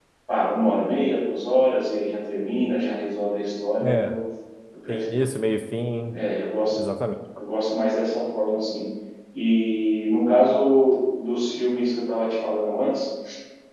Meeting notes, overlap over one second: none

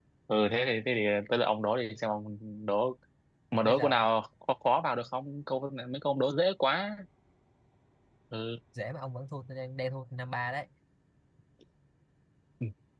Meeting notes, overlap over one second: none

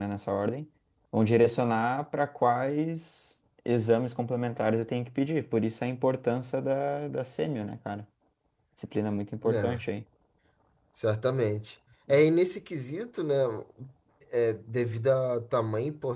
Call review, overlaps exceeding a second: none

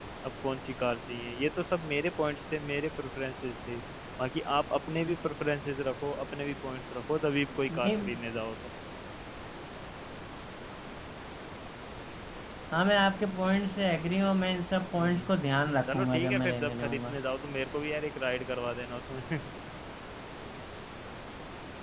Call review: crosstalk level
present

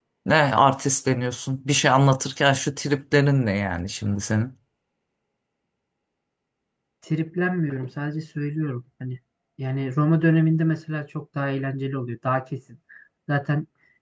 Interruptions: none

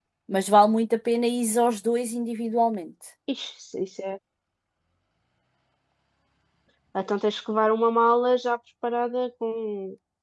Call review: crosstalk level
none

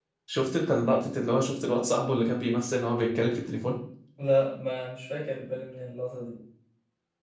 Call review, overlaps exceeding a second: none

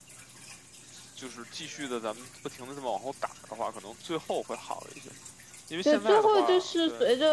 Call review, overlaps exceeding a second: present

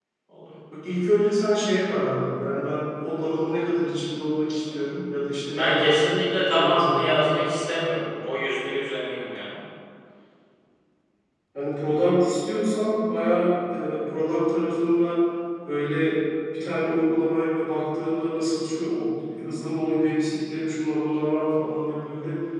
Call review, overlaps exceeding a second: present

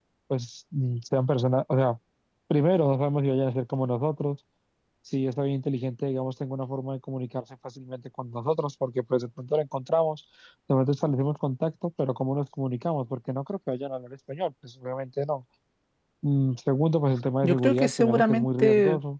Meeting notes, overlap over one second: present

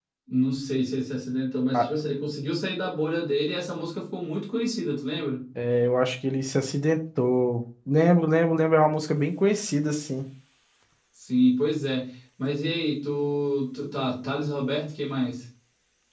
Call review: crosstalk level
none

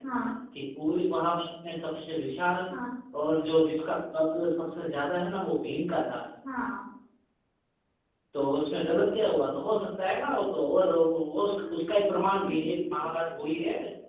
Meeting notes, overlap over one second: present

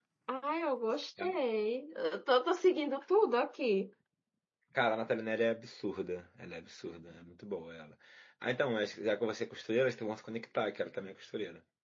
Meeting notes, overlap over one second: none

